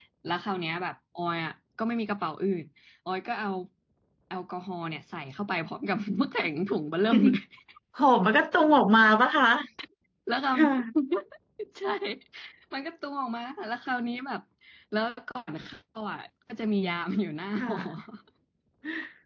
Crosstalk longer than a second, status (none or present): none